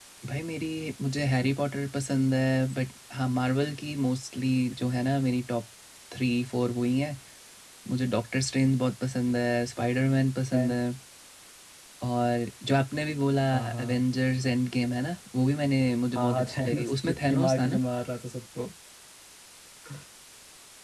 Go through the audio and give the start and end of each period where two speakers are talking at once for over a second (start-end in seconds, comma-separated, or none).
16.1-17.8